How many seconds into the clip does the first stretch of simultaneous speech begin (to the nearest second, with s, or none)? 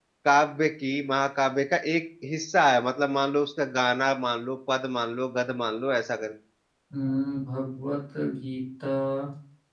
none